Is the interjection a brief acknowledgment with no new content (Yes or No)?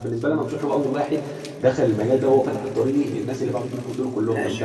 No